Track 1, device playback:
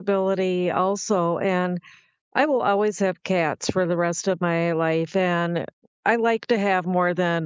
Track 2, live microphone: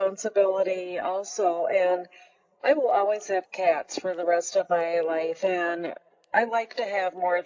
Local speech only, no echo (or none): none